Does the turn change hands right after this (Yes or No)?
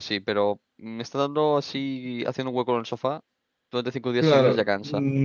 Yes